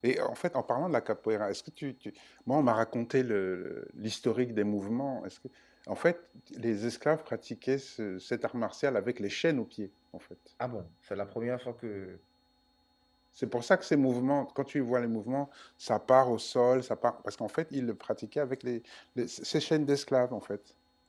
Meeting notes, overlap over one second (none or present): none